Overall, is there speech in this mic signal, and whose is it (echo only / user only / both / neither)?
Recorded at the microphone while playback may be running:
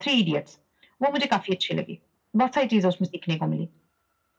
echo only